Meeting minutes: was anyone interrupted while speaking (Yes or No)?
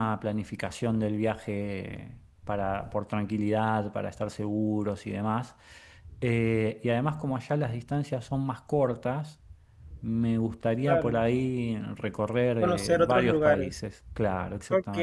Yes